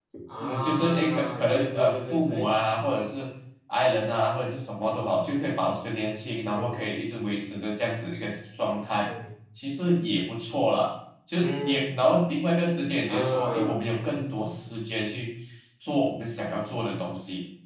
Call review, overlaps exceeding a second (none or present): present